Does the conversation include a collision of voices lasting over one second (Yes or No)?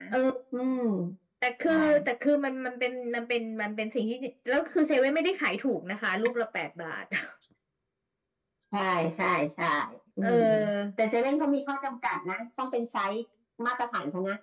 No